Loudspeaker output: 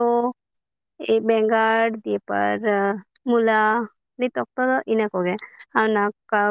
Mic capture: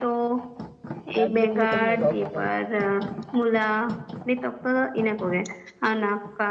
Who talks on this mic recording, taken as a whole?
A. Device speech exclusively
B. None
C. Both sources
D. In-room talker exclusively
C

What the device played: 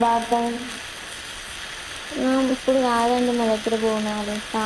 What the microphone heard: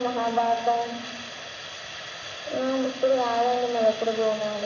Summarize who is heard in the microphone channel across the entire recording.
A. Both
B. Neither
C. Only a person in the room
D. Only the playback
D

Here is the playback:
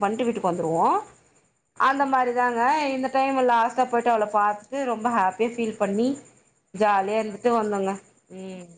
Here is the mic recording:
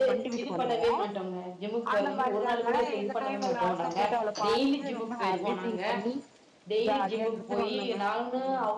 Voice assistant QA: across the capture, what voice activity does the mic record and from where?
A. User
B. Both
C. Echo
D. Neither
B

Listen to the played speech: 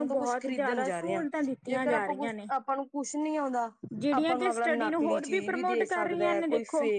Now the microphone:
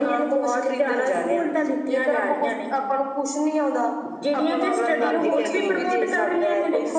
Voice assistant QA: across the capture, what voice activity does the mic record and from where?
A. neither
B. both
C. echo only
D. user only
B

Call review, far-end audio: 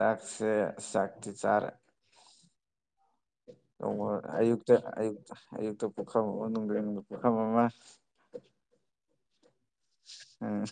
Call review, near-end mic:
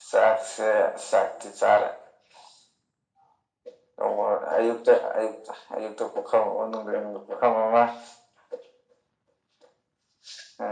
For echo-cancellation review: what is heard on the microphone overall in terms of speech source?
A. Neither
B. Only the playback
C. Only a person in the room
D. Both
B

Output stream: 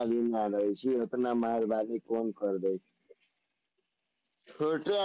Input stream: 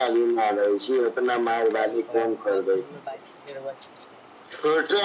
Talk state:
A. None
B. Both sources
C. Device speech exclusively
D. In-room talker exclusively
B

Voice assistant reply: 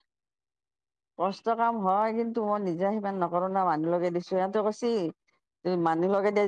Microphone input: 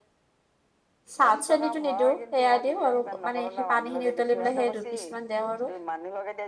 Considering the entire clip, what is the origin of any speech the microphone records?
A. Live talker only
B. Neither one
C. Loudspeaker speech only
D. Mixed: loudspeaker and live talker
D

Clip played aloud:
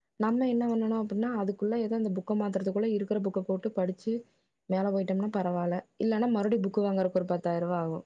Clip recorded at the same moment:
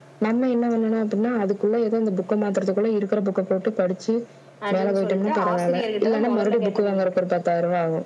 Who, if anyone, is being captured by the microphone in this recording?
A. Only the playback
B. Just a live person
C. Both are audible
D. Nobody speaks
C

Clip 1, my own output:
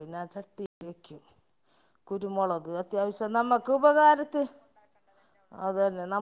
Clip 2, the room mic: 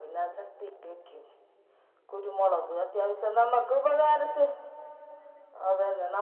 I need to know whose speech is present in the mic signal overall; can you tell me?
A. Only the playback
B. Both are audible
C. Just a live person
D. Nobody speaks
A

